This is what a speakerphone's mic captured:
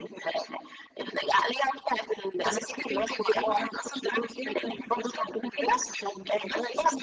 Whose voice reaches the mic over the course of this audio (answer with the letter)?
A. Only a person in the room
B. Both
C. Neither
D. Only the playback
D